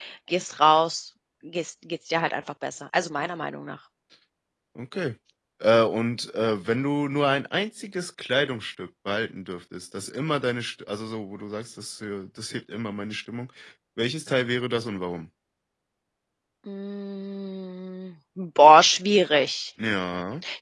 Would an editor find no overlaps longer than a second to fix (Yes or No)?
Yes